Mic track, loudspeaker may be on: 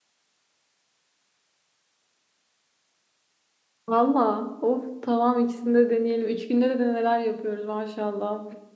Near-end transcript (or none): Valla of tamam ikisini de deneyelim. Üç günde de neler yapıyoruz maşallah.